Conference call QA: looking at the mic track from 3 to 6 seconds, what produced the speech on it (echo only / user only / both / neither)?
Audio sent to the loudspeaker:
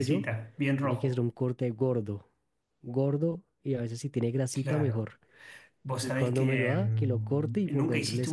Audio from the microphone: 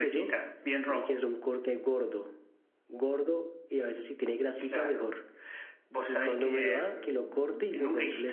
echo only